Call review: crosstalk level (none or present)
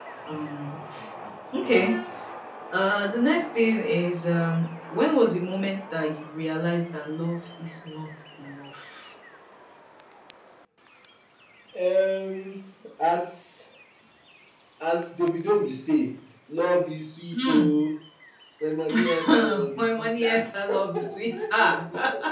present